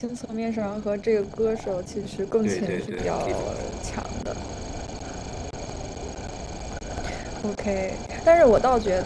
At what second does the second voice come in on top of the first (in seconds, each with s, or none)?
2.4 s